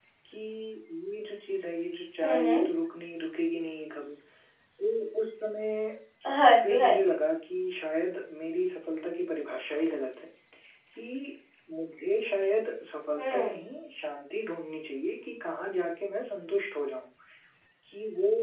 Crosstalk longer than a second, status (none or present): none